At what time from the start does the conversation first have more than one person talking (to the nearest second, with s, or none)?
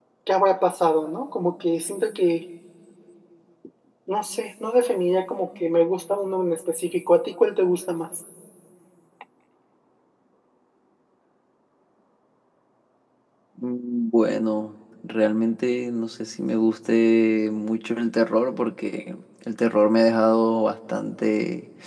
none